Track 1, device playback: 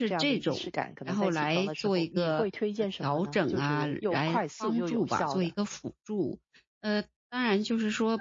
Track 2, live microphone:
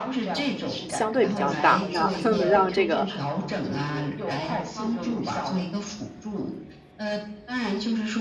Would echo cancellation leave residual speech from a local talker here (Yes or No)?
Yes